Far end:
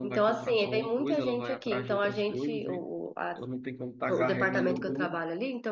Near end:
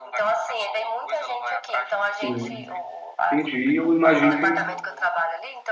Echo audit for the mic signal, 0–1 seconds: echo only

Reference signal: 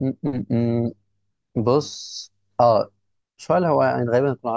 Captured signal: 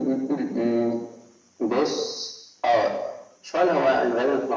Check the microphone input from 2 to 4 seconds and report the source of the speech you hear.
echo only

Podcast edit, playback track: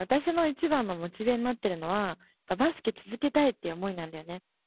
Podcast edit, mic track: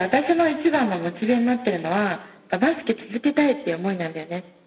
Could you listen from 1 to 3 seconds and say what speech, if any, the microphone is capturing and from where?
echo only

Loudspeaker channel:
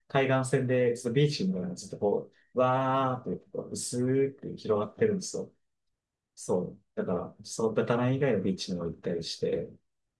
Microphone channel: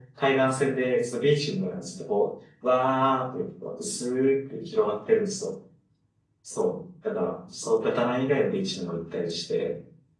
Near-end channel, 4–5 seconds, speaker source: echo only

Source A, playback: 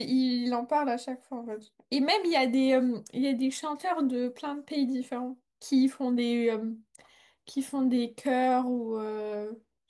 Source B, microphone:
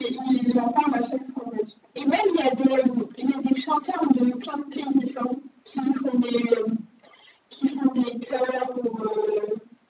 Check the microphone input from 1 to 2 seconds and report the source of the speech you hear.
echo only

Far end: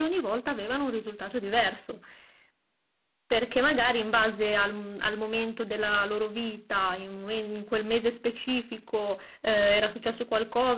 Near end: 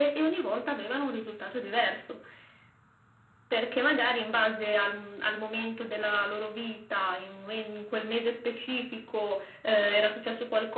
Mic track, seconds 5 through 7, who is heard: echo only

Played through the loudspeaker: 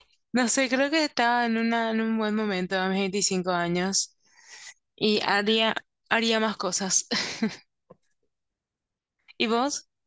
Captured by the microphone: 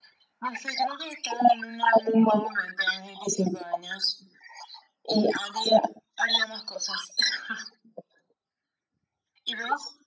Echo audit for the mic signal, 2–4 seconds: echo only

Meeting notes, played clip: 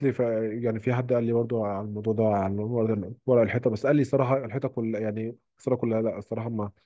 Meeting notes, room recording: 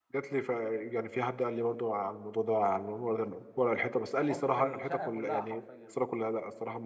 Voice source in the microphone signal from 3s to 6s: both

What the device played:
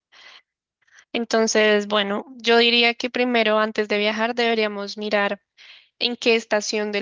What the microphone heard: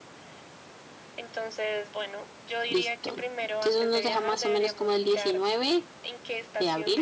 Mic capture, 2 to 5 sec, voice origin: both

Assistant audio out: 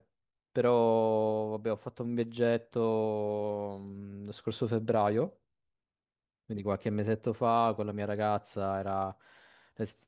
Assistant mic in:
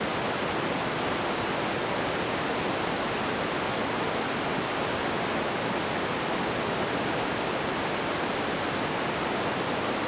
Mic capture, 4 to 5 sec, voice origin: neither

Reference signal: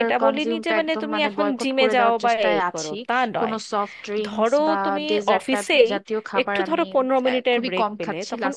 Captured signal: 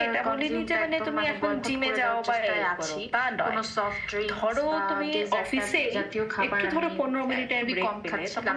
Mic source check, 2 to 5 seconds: echo only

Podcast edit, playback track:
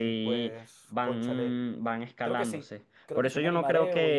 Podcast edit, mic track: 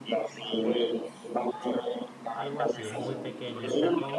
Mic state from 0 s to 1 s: echo only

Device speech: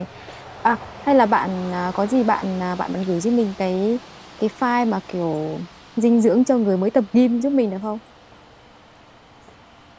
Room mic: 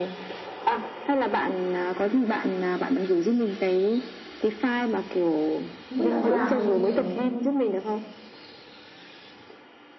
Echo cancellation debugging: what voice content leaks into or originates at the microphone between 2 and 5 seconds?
echo only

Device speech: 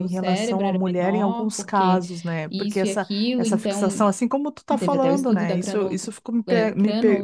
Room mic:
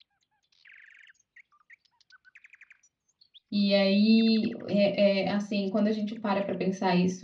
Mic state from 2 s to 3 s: neither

